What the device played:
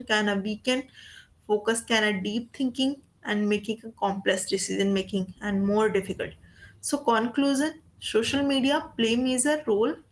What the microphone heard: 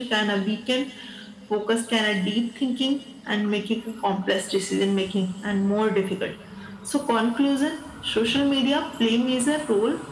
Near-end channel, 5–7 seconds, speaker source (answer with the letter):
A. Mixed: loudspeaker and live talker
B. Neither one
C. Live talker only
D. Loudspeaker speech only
D